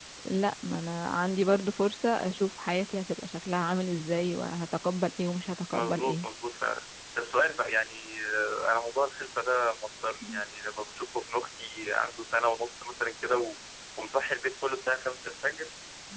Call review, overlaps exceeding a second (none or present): none